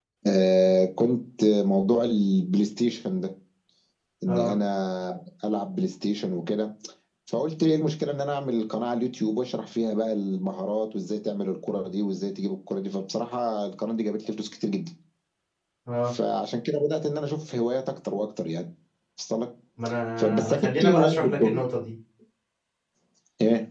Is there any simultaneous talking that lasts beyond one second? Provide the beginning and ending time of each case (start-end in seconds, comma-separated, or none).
20.2-21.6